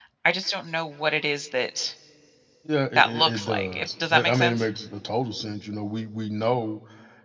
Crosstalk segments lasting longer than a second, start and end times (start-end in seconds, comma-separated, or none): 3.0-4.7